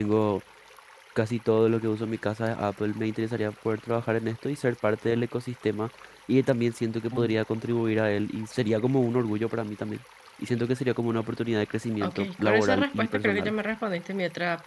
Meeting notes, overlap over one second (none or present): present